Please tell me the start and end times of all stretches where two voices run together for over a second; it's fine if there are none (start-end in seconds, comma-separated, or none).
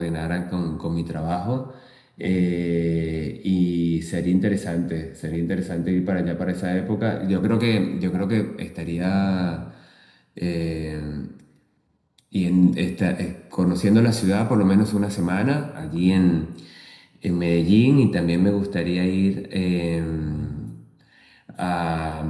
none